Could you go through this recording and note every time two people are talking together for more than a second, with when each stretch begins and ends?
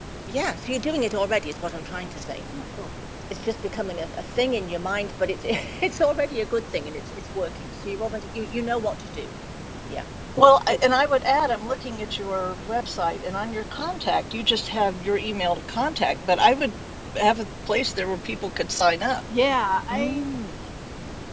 none

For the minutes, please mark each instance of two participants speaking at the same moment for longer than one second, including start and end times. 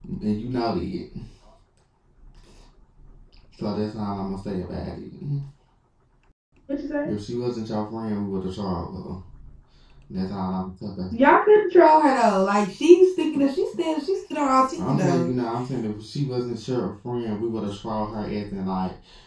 none

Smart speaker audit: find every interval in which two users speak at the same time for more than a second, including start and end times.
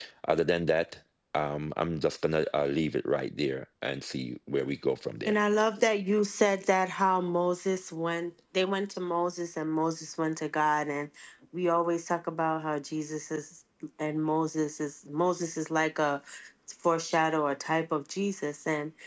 none

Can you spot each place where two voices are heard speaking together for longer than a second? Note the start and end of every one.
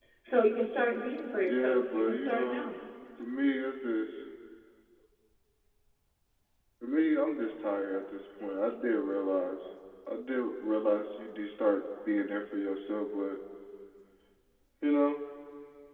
1.5-2.7

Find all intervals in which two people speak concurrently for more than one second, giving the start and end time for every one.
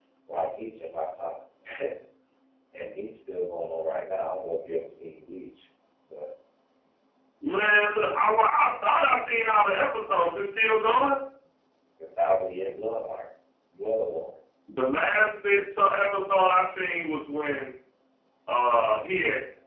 none

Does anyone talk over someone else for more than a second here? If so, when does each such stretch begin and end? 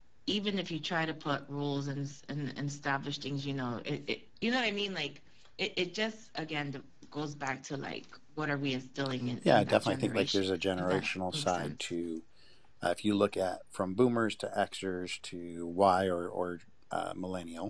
9.4-11.9

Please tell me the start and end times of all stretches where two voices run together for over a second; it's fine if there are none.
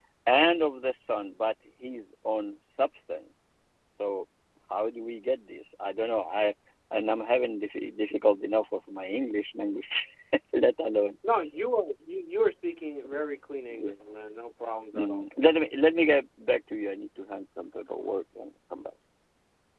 none

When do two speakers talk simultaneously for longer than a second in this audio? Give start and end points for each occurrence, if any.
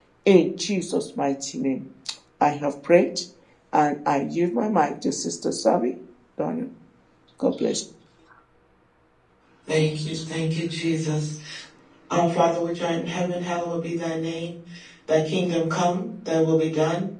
none

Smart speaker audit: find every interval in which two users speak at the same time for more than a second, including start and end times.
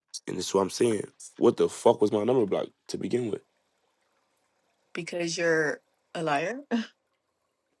none

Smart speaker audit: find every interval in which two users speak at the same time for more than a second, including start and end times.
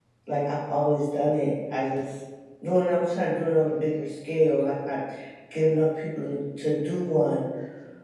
none

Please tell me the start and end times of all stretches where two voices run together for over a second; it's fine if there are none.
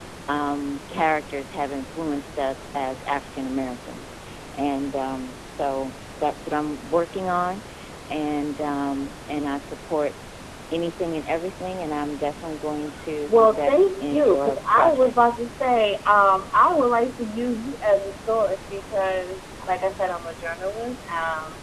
13.3-15.3

